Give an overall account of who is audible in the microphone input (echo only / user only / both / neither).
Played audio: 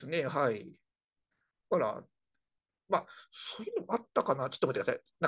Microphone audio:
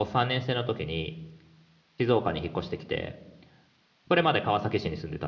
user only